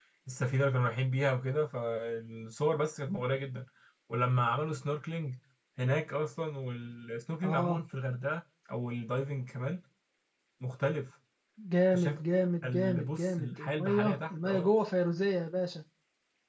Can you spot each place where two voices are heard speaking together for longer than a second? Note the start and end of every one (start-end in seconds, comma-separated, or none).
12.6-14.7